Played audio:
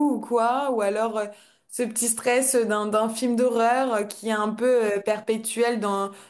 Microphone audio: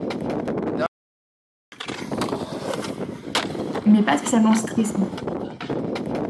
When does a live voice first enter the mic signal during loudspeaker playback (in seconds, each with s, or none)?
3.9 s